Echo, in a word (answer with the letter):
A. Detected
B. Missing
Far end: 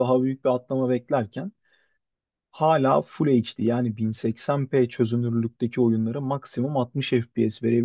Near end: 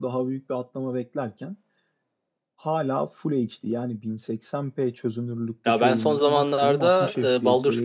A